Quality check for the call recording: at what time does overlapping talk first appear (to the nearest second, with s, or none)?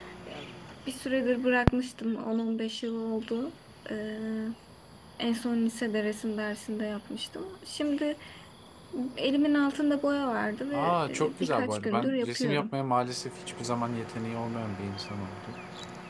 11 s